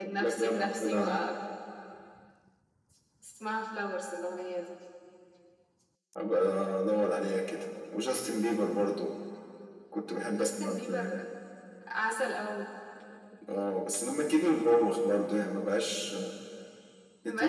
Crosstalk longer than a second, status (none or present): present